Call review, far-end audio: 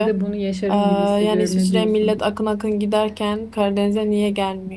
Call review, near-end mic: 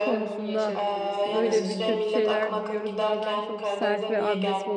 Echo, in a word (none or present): present